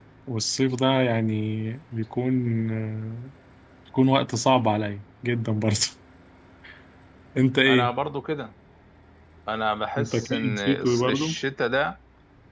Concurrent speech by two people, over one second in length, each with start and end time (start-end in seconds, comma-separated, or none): 10.0-11.3